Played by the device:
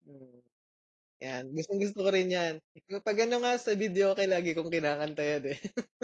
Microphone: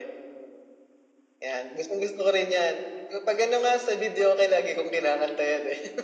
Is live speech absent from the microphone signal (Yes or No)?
Yes